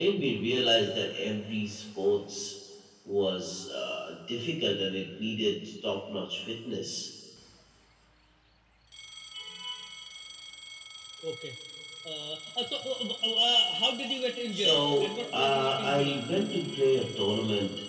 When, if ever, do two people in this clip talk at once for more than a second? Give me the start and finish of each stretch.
14.5-16.2

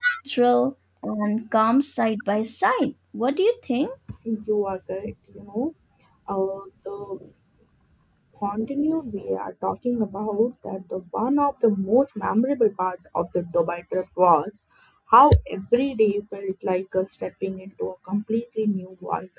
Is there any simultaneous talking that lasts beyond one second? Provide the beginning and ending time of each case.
none

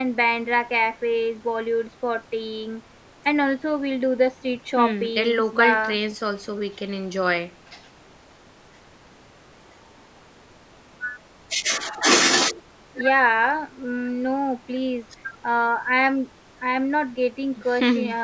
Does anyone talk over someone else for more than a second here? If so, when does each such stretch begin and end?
4.8-6.0

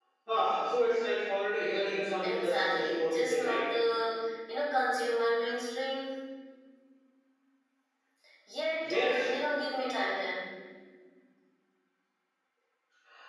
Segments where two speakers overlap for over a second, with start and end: 2.2-3.6

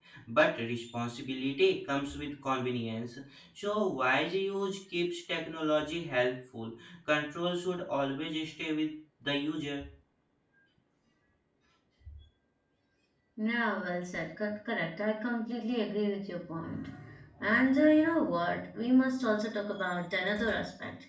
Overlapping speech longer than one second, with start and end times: none

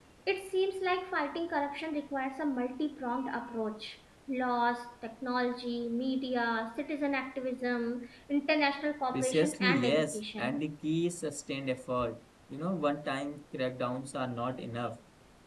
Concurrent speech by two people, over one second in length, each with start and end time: 9.1-10.6

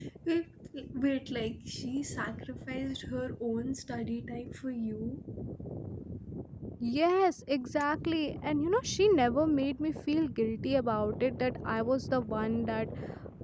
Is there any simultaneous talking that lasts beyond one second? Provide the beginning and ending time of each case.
none

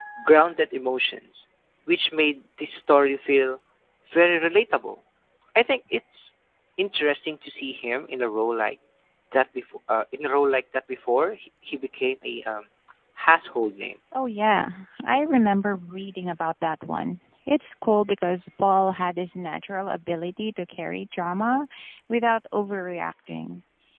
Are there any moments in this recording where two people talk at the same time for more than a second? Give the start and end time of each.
none

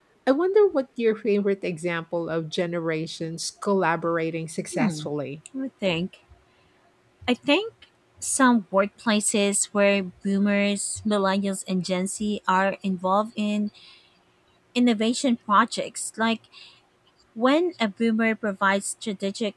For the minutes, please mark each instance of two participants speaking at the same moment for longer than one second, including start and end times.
none

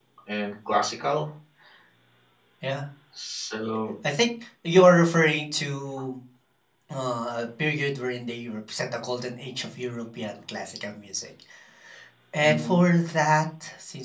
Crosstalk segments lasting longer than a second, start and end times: none

